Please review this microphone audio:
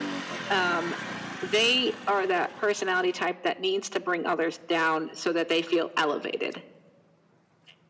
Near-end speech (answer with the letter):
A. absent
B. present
A